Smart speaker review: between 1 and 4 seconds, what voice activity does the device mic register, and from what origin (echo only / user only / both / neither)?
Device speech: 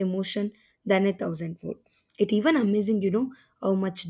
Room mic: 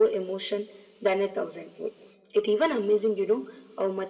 echo only